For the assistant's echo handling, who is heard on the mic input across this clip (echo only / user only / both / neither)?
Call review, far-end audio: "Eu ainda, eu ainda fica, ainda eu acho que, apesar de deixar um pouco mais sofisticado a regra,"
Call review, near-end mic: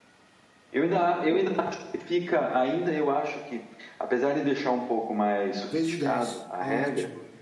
both